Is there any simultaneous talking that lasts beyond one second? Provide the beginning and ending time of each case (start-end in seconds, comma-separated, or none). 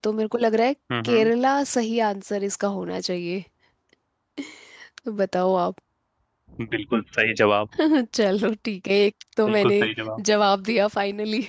none